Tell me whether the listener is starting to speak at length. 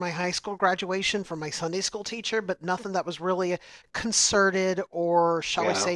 Yes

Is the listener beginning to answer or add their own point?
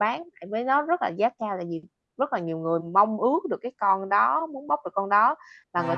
Yes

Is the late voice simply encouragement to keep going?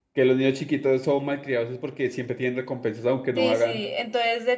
No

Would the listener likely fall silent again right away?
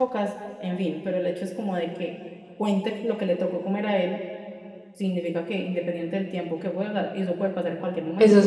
No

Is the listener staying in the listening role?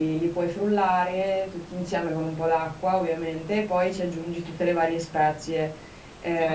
Yes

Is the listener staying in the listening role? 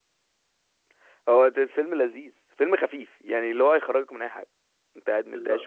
No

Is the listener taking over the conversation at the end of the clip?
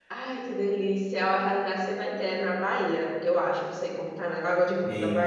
Yes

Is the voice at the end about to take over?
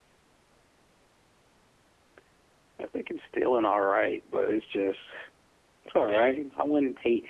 No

